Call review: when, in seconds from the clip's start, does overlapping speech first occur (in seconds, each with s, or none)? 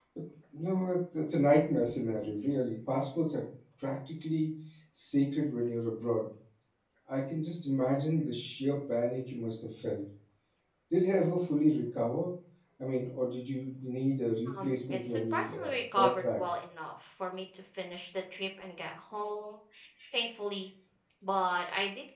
14.5 s